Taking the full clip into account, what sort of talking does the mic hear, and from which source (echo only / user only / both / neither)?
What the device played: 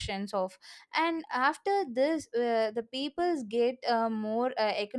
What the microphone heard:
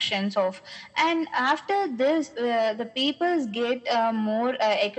echo only